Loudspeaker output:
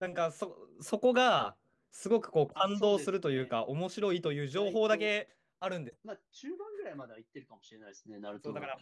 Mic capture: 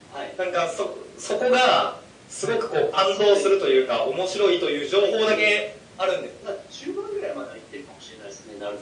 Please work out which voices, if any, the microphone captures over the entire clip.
both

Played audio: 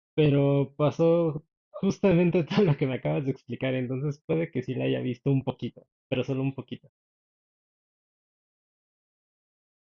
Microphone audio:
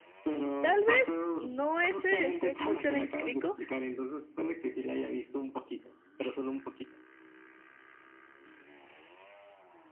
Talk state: both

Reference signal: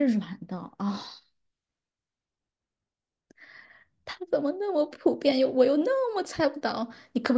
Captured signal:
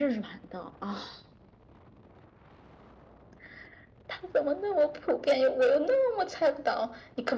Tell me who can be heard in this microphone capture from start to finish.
echo only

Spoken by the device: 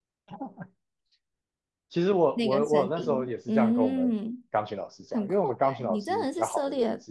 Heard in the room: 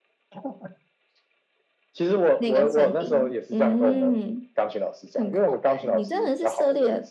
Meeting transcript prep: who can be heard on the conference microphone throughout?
echo only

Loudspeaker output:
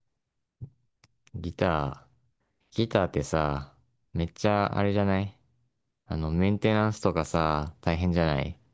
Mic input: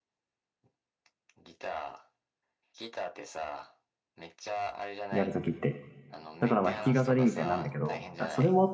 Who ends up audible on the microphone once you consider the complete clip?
both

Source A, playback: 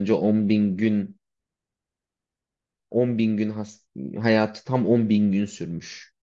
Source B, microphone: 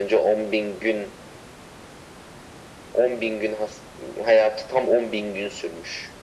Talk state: echo only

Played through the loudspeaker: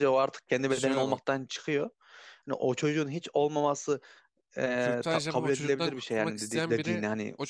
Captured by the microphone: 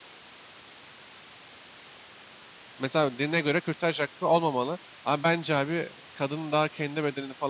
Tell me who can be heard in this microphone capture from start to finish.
user only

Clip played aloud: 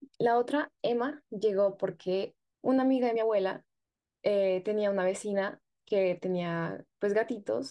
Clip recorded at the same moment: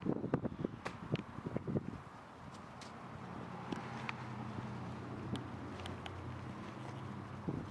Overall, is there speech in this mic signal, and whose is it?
neither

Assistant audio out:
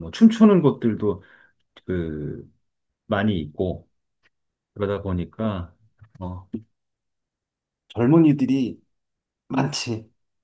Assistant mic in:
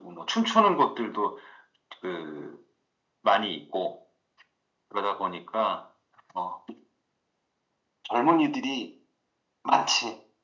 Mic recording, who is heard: echo only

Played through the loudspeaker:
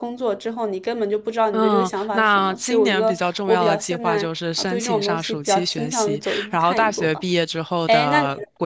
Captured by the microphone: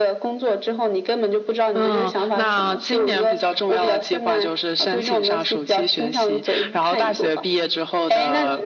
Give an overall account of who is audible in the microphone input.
echo only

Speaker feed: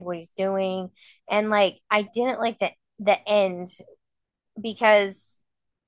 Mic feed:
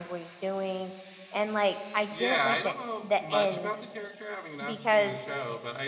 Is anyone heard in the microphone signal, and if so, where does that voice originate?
both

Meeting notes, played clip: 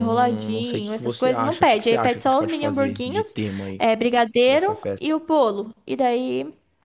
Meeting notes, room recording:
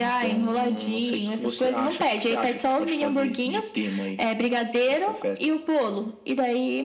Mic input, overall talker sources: echo only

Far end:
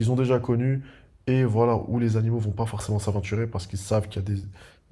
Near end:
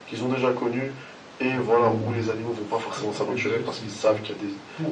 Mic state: both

